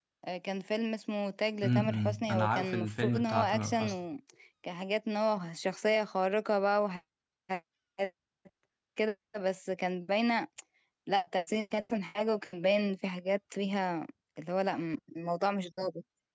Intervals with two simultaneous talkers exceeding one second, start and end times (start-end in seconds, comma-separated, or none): 1.6-3.9